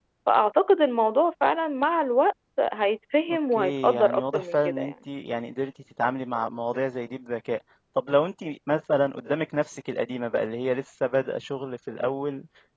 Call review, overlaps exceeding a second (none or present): present